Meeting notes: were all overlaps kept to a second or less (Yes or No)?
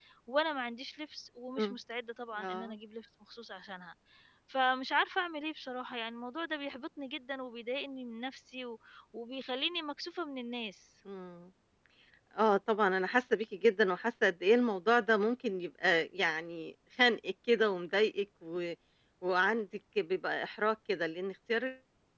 Yes